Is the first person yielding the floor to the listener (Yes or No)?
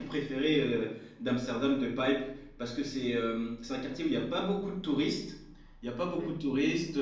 No